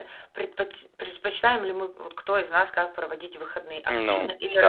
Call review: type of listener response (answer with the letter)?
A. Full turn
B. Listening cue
B